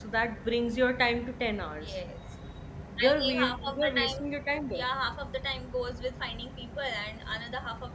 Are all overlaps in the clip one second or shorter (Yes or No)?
No